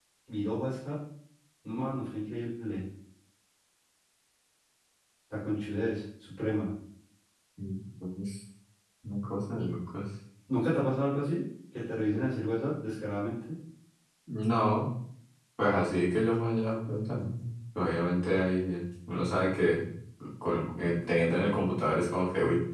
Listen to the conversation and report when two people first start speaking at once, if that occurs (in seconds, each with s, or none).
none